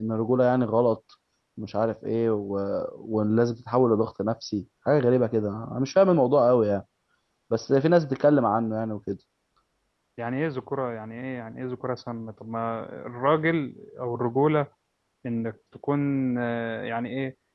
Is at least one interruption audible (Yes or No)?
No